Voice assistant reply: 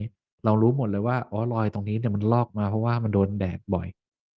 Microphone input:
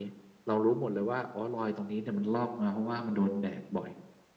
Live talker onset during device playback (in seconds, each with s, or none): none